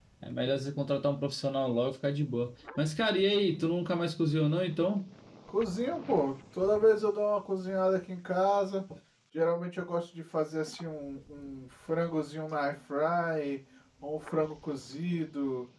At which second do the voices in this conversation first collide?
none

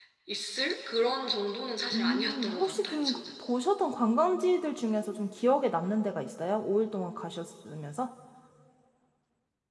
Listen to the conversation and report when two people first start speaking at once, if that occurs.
1.9 s

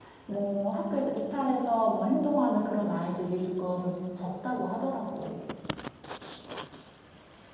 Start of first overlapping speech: none

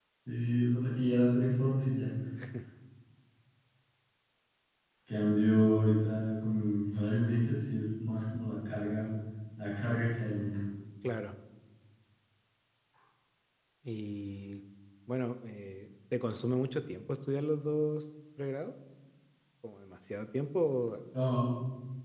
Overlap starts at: none

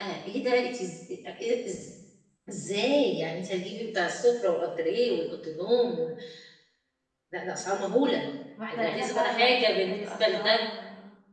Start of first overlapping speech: 8.7 s

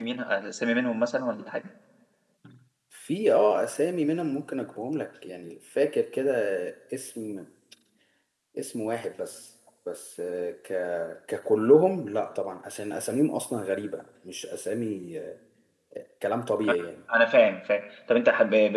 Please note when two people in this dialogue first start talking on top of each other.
none

